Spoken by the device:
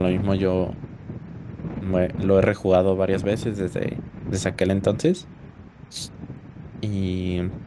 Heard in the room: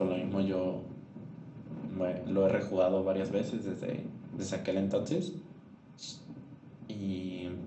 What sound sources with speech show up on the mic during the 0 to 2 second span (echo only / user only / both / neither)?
echo only